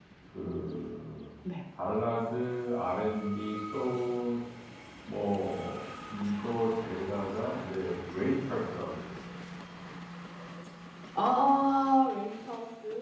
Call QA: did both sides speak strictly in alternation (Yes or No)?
Yes